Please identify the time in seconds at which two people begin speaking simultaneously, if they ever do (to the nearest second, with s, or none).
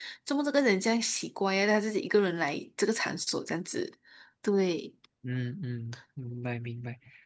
none